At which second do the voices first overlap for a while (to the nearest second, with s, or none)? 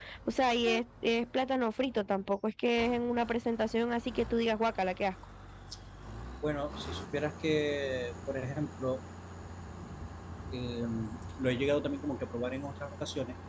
none